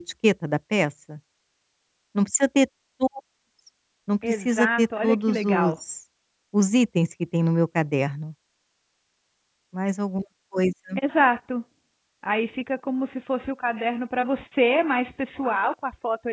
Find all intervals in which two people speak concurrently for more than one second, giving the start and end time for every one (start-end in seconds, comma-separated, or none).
4.2-5.7